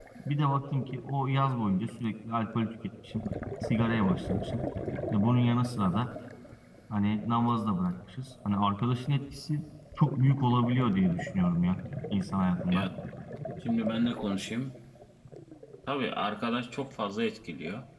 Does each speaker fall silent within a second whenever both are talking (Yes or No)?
Yes